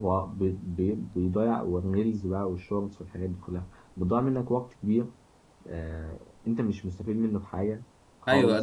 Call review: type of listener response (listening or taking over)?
taking over